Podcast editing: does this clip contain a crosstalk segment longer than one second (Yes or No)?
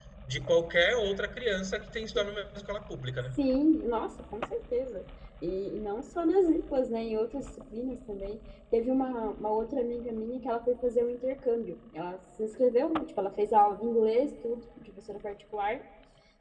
No